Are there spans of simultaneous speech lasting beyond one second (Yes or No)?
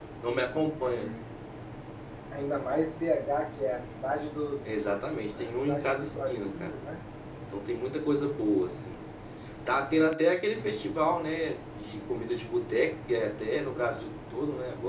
Yes